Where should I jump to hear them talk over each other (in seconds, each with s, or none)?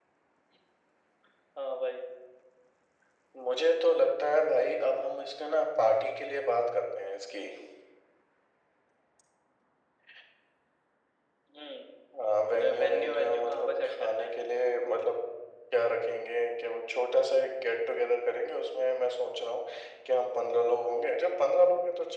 12.8 s